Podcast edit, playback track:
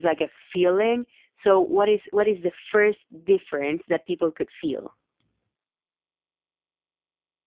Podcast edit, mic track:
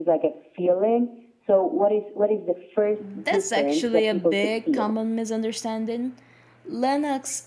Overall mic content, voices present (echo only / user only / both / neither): both